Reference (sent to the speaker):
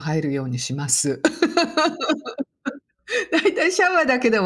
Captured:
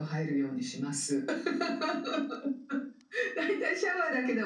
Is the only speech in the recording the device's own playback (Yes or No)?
Yes